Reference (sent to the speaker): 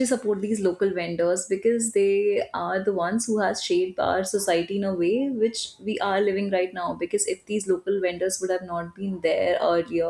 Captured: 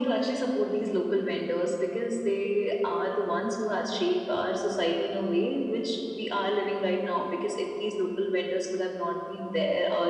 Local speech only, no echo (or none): none